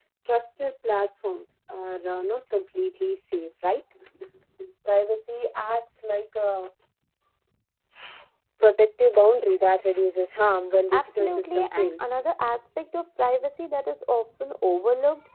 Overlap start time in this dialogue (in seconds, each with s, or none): 10.9 s